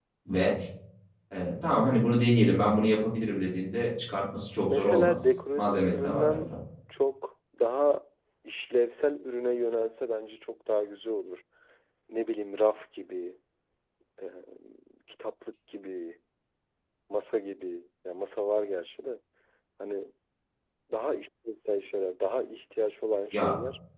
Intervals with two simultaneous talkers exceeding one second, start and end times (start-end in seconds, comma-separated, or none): 4.6-6.5